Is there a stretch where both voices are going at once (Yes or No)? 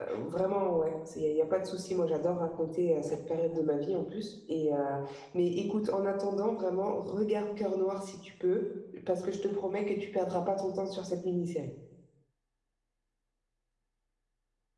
No